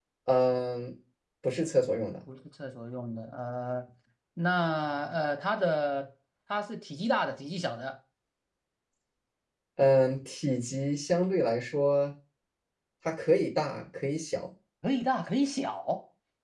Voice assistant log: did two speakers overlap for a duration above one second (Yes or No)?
No